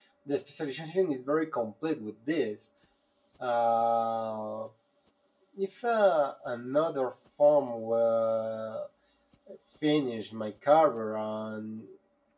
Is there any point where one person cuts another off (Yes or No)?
No